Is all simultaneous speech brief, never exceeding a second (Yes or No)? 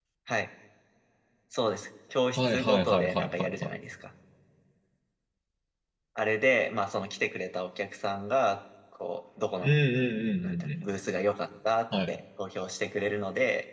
No